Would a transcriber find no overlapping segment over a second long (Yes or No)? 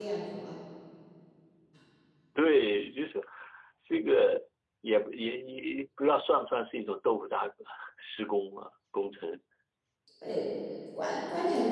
Yes